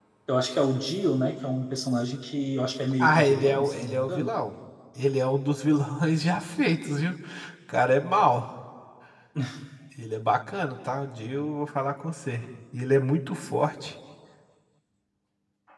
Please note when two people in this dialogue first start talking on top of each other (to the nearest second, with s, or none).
3 s